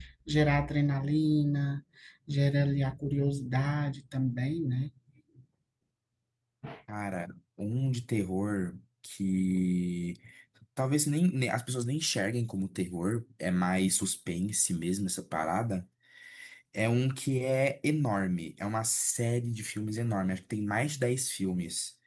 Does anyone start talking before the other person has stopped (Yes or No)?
No